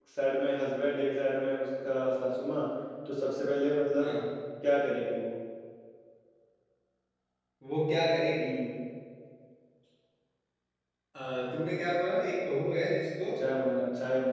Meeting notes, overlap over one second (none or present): none